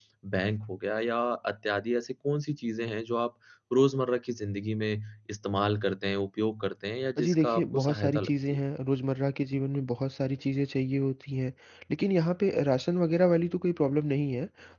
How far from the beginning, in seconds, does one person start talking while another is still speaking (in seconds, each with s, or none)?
7.2 s